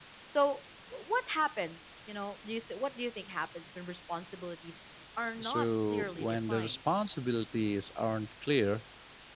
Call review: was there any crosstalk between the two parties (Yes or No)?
Yes